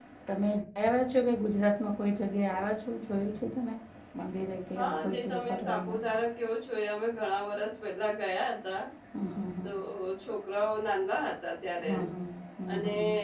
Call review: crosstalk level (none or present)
present